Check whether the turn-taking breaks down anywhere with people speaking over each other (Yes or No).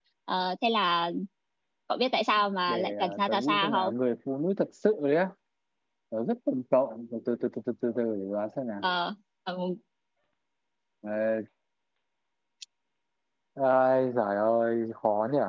Yes